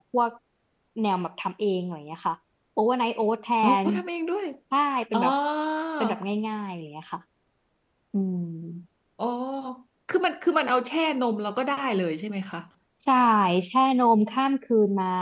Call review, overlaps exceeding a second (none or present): none